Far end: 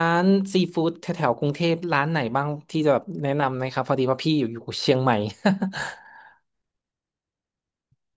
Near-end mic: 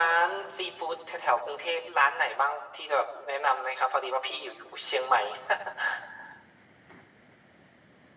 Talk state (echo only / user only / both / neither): echo only